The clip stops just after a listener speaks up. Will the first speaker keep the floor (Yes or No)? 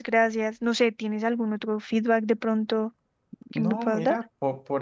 No